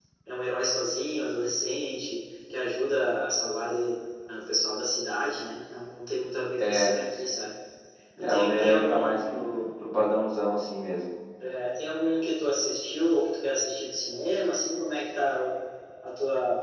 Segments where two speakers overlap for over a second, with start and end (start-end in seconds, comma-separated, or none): 8.2-9.4